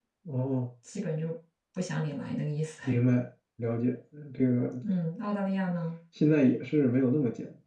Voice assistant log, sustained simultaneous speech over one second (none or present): none